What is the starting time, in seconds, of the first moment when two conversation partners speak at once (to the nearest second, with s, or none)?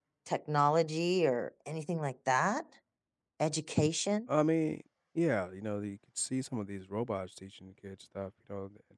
none